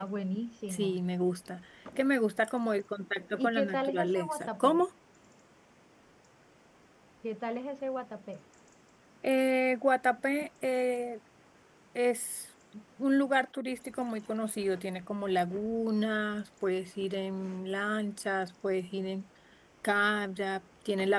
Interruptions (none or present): present